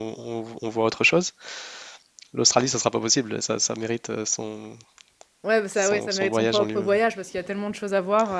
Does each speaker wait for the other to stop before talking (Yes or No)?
No